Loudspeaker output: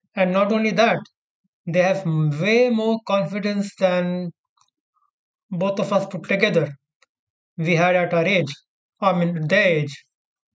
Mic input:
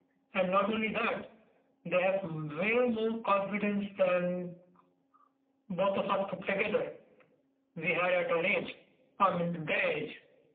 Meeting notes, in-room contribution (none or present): none